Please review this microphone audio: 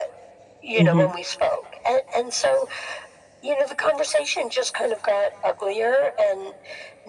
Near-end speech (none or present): present